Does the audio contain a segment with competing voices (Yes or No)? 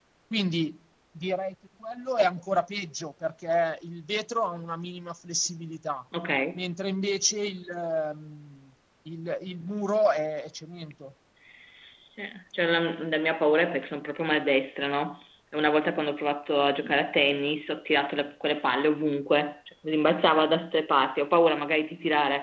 No